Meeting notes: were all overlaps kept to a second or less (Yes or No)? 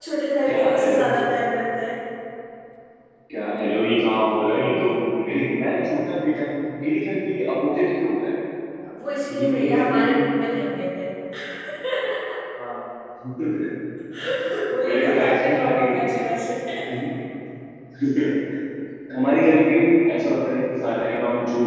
No